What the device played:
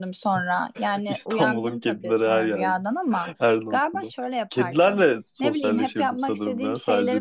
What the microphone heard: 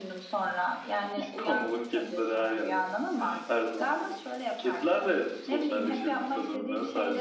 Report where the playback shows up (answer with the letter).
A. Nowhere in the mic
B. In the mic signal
B